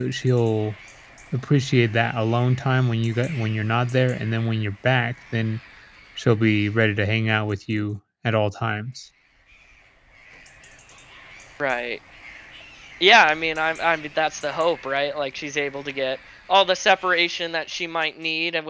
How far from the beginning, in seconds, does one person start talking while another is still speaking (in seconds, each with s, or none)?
none